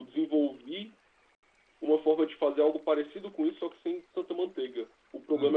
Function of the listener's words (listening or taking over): listening